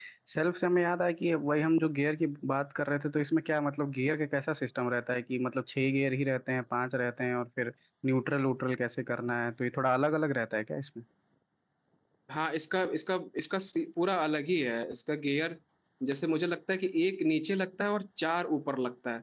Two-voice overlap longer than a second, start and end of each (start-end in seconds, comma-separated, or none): none